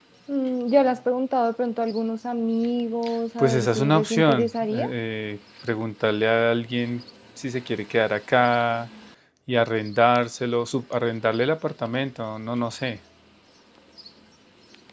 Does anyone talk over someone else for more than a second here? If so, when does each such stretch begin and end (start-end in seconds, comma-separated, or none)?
3.4-4.9